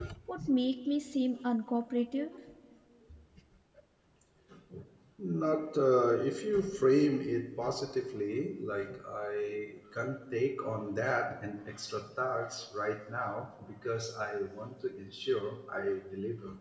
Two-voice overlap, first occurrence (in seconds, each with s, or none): none